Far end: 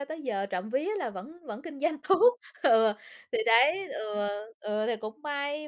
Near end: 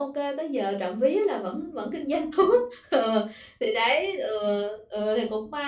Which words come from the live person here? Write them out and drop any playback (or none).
none